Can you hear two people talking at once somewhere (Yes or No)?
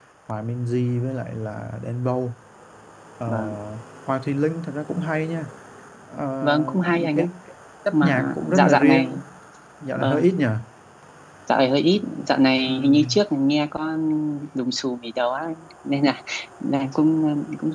Yes